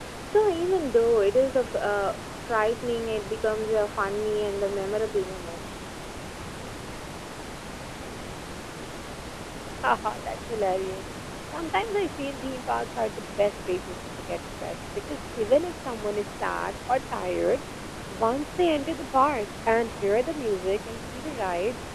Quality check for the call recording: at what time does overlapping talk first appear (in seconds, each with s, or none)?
none